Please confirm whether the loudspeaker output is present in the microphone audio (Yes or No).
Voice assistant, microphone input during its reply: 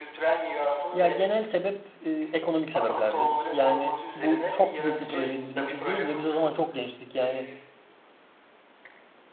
Yes